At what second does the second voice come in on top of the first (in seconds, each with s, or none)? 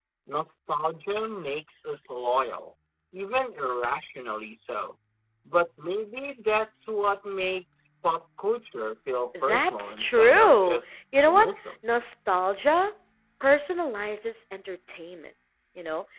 9.3 s